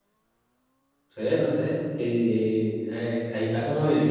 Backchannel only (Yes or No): No